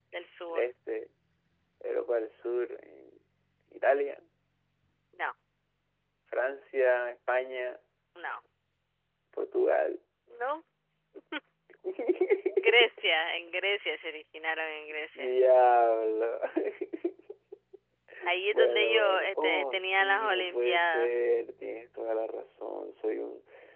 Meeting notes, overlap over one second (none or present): present